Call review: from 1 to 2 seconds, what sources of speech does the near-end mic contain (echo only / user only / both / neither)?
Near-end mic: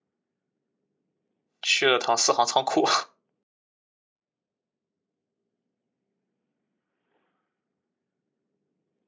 user only